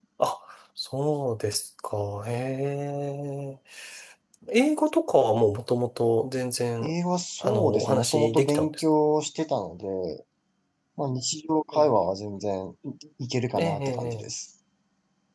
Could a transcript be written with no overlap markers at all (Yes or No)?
No